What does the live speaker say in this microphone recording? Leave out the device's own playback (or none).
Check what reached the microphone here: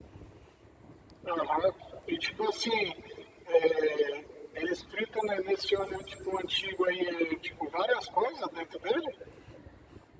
none